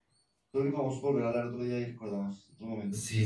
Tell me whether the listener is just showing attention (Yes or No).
No